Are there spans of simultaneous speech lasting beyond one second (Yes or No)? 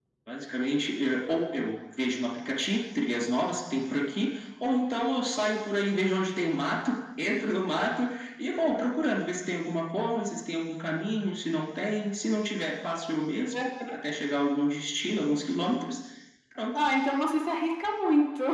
No